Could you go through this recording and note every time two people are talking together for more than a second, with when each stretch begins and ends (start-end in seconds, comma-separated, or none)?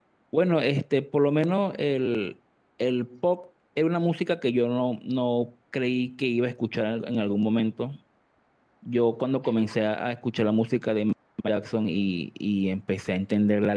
none